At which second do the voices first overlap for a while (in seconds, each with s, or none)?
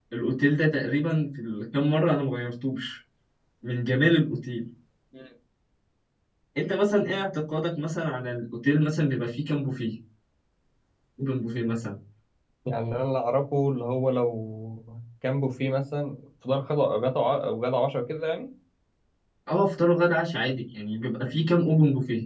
none